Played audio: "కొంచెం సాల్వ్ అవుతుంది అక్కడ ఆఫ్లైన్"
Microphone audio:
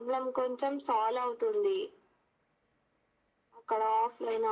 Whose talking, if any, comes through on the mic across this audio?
echo only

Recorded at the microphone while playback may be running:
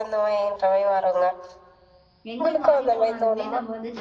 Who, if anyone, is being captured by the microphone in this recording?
both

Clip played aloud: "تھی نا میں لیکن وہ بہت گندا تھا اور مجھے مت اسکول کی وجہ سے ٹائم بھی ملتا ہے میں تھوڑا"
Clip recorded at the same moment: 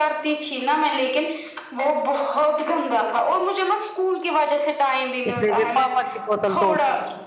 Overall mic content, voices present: both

